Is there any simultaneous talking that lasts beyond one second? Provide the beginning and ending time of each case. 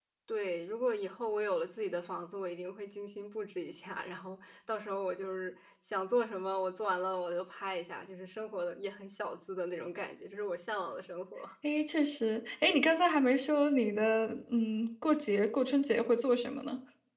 none

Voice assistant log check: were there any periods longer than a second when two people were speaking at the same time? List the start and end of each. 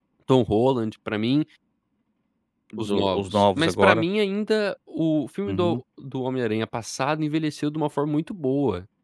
2.8-4.0

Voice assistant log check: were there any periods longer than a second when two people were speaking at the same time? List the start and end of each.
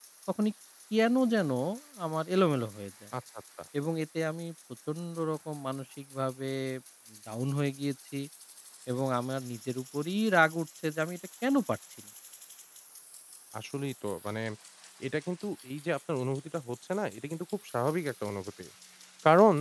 none

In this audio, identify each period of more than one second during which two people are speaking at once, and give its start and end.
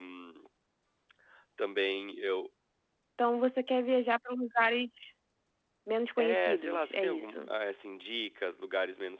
6.2-7.5

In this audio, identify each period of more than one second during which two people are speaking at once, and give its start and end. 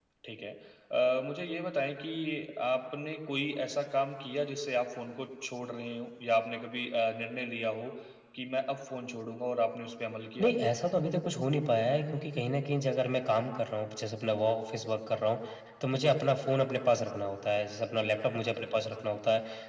none

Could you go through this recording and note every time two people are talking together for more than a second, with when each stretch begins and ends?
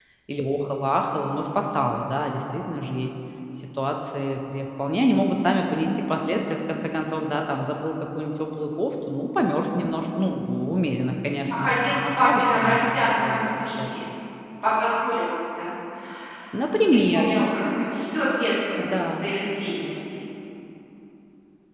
11.5-13.9

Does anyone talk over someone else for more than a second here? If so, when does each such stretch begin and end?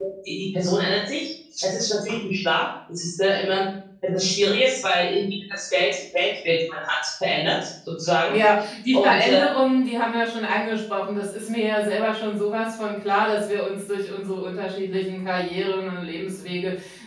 none

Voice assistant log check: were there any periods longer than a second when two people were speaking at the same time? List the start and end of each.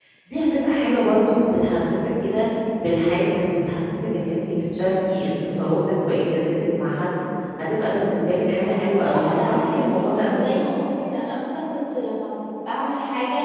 8.8-10.6

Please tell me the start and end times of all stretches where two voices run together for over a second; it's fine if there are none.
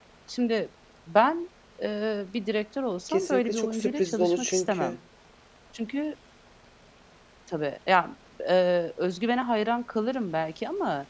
3.1-5.0

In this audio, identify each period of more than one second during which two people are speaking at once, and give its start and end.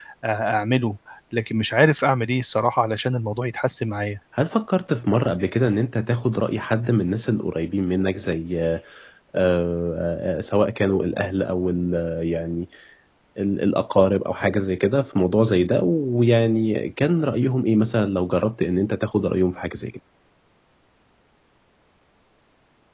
none

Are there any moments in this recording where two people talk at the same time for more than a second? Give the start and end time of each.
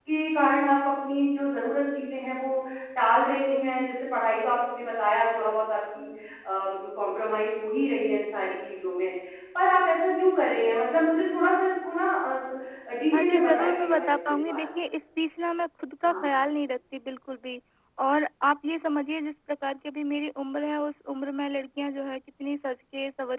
13.1-14.6

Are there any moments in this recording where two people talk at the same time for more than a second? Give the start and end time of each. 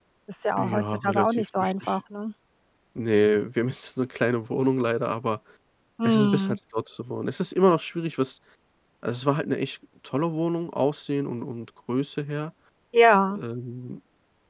0.6-1.9

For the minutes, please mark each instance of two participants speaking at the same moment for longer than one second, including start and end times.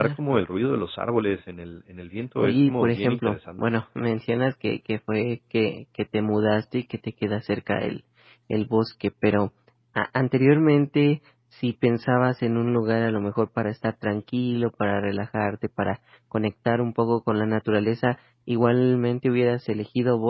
2.4-3.6

